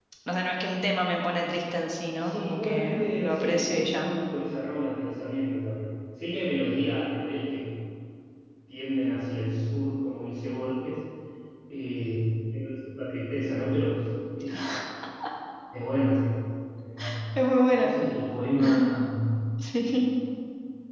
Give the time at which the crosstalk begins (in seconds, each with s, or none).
2.2 s